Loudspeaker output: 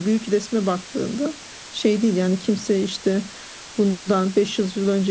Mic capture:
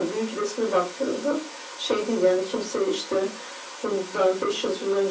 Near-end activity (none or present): none